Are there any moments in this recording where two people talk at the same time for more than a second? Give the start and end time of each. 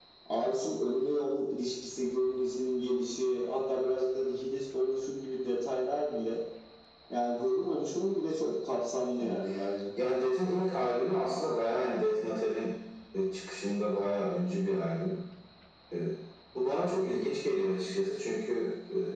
none

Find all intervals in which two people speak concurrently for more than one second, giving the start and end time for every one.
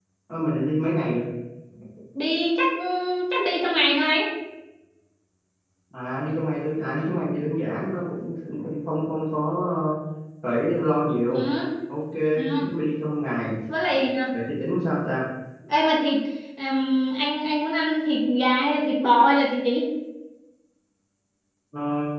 none

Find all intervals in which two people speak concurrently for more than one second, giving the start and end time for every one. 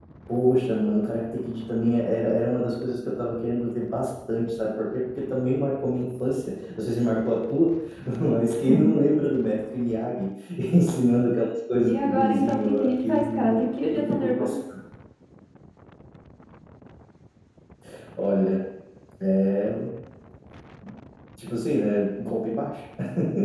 11.8-14.5

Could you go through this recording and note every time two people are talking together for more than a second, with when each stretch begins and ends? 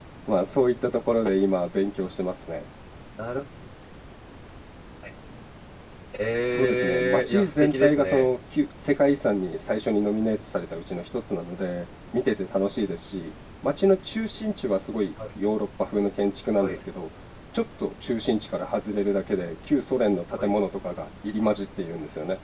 6.5-8.3

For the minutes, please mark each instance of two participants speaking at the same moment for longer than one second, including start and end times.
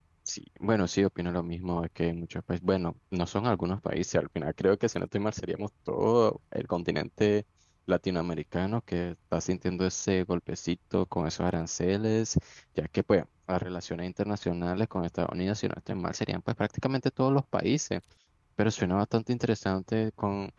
none

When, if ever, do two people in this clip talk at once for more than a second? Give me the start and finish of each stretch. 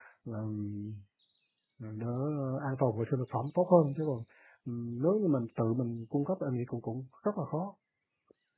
none

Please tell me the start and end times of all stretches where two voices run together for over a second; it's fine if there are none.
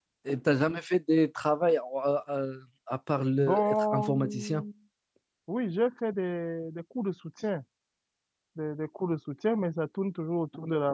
3.4-4.6

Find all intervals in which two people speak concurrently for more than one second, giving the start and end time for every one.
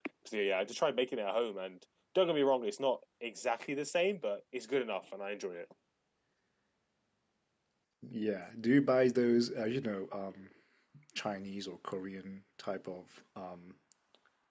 none

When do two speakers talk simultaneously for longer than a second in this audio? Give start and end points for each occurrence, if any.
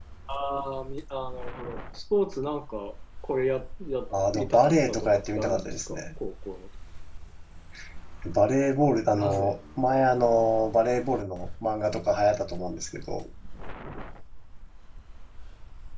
4.3-6.0

